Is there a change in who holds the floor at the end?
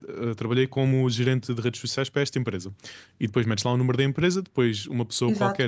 No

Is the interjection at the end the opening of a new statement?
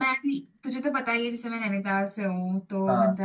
No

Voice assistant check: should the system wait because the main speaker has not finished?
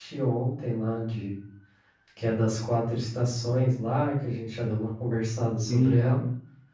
No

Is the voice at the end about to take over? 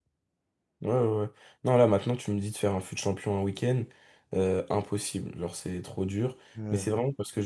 No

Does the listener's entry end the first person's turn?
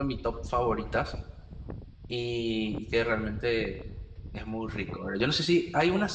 No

